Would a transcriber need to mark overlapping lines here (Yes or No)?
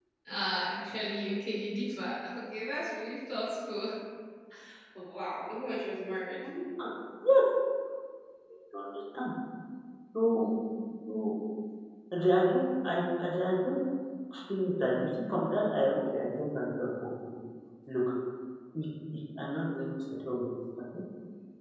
No